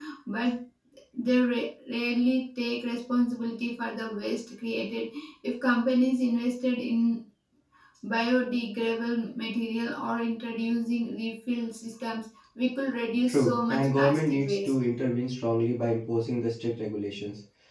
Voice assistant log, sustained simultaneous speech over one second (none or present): present